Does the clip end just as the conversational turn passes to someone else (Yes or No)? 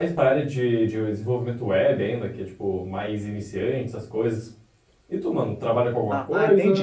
Yes